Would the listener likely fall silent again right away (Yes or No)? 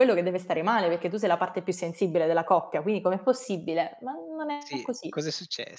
No